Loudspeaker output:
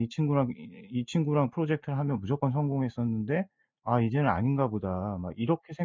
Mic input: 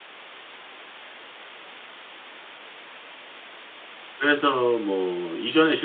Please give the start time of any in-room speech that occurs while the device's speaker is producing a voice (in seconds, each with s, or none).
4.2 s